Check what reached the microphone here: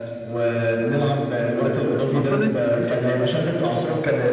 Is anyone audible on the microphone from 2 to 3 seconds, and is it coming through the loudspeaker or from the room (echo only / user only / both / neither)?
both